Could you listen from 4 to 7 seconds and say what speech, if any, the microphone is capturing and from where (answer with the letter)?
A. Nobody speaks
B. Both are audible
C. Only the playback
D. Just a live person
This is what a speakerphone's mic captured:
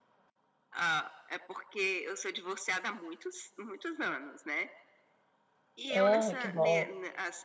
B